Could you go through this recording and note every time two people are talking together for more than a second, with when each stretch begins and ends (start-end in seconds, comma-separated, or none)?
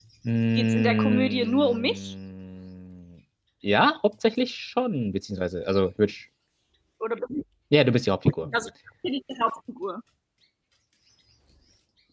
0.6-2.1